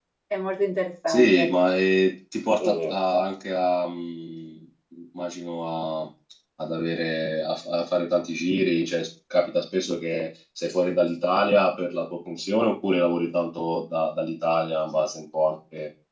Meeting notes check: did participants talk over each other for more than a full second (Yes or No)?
No